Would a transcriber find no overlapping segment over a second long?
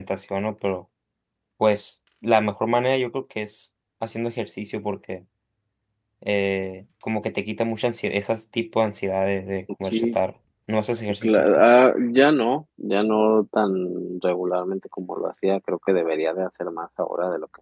Yes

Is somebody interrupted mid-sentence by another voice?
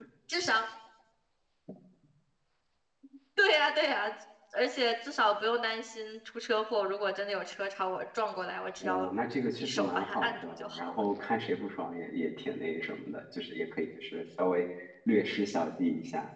Yes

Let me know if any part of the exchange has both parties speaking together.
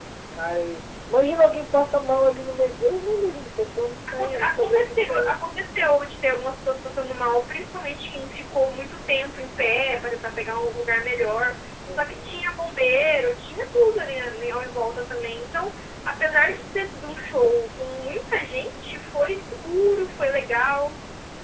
Yes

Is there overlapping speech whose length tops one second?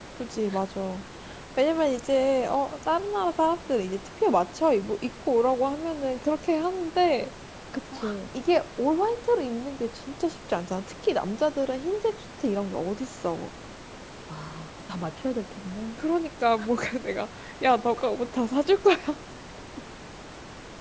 No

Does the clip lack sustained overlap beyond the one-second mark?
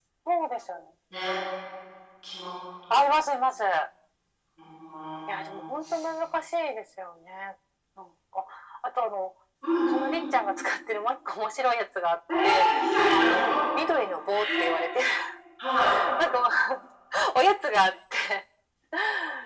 Yes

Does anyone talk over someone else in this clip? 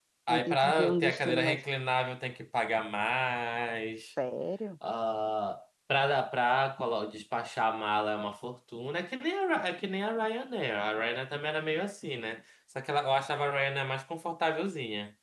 Yes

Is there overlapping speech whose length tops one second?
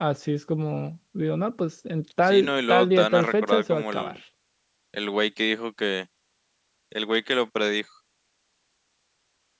Yes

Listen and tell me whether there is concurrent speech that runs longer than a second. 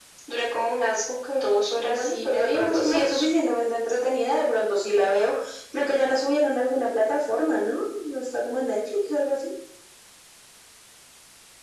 Yes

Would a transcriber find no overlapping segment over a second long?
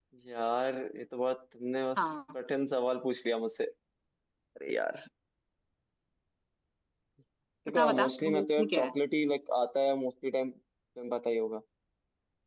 No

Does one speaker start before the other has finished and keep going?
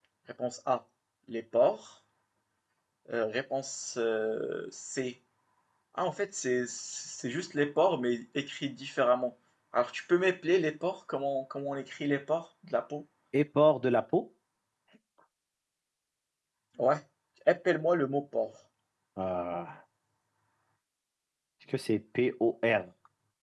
No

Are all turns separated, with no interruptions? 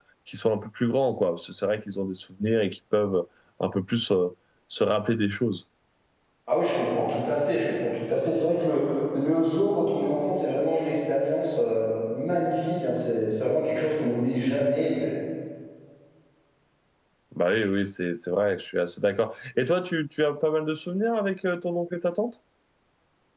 Yes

